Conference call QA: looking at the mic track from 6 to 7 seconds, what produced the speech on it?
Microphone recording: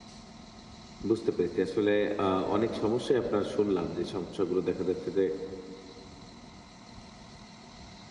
neither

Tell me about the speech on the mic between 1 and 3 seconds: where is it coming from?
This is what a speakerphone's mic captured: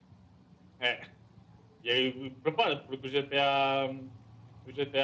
echo only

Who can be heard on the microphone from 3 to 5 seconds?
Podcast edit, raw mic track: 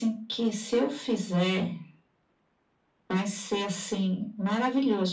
echo only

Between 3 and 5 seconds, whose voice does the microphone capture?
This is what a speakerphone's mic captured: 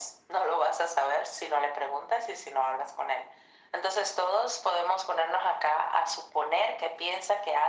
echo only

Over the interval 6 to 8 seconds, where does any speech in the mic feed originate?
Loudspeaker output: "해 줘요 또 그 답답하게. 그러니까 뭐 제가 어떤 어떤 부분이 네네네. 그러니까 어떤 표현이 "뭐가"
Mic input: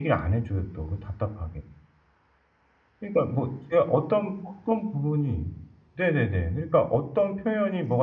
echo only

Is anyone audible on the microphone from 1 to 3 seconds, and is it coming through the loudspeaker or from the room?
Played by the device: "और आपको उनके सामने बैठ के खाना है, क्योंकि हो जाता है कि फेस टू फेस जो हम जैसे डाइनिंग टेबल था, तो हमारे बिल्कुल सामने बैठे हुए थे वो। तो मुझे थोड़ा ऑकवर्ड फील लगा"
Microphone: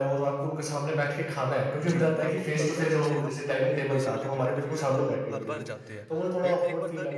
both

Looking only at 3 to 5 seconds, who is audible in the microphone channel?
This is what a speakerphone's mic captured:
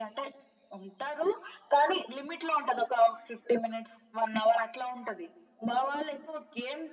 echo only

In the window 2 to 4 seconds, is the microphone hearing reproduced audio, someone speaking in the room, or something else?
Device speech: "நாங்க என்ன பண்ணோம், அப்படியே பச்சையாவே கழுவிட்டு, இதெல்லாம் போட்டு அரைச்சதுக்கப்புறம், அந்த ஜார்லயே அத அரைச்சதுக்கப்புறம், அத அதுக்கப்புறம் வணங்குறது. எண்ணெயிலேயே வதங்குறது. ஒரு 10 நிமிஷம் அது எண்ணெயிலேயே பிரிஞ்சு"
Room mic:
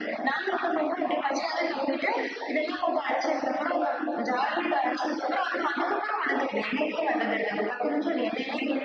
echo only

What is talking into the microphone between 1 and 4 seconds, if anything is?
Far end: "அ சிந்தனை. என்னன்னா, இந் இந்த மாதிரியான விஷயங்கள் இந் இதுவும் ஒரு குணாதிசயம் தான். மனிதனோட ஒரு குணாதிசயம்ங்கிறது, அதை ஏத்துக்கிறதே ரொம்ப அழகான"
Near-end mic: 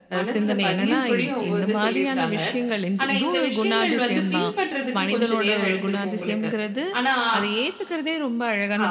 both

